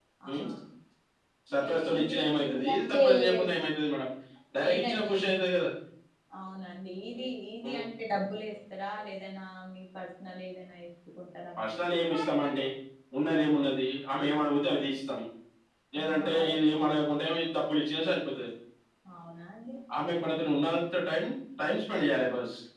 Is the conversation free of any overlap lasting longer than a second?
No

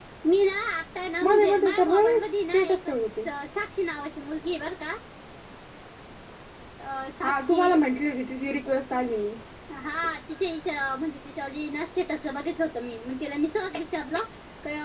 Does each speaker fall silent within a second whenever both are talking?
No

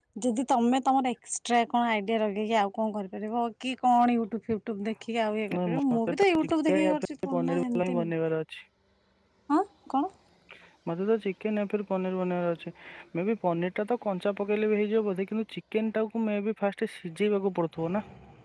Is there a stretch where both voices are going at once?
Yes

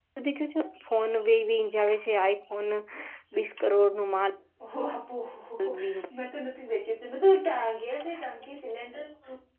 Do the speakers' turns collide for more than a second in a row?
No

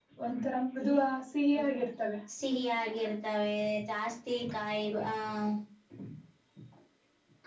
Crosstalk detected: No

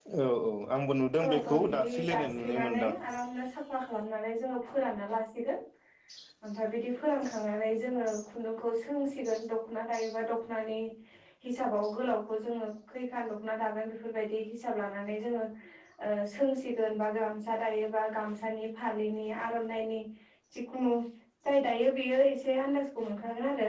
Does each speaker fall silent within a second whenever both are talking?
No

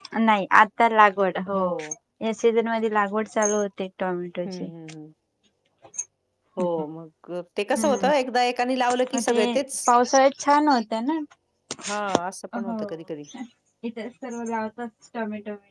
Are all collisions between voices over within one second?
Yes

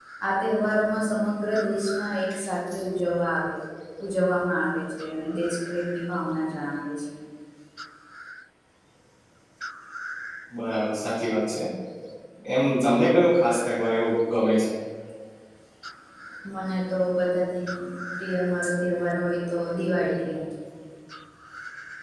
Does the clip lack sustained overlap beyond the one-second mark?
Yes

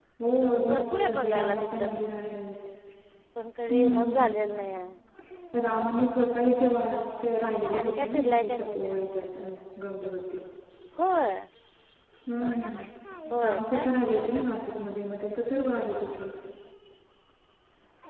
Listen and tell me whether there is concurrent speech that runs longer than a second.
Yes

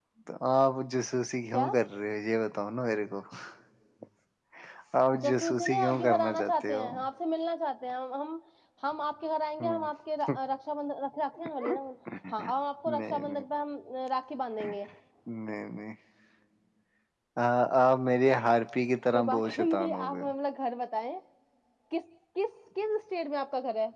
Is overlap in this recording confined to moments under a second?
No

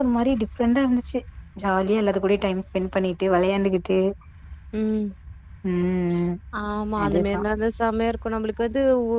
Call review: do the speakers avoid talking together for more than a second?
Yes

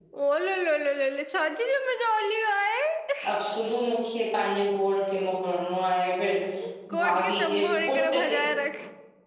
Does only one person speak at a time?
No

